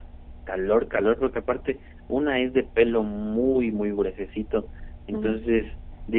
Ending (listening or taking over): listening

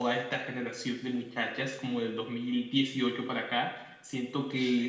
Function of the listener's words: listening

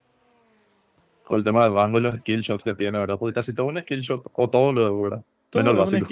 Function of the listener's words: taking over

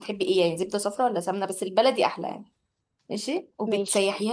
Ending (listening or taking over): listening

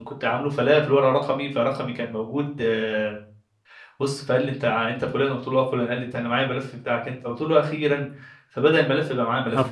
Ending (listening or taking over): listening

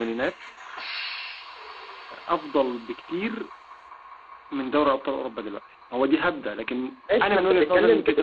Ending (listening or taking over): taking over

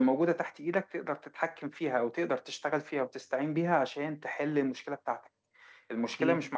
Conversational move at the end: listening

